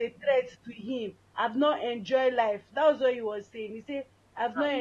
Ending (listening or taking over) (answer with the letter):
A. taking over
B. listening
A